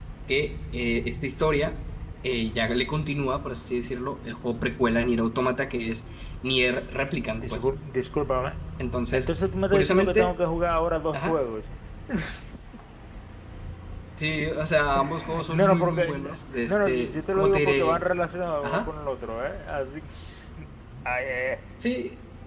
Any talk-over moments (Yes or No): Yes